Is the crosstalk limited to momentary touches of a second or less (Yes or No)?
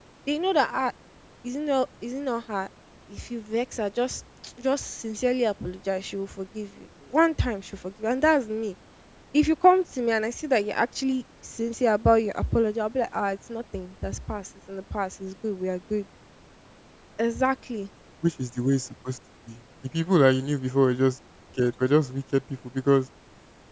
Yes